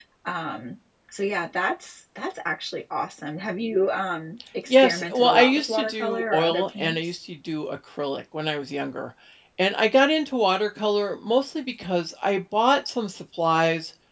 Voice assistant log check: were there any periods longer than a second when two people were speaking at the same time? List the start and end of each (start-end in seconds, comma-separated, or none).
4.7-7.0